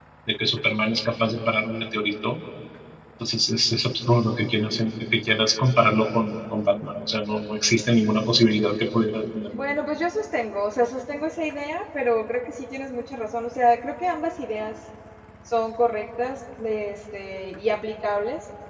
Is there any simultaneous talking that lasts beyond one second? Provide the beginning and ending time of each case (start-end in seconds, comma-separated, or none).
none